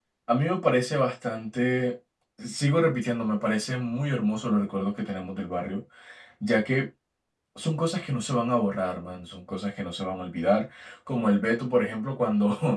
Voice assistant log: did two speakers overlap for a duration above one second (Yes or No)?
No